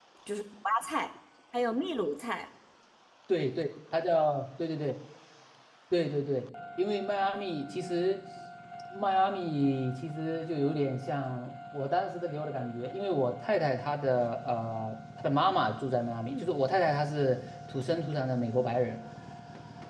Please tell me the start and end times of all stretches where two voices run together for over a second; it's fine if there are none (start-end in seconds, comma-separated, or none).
none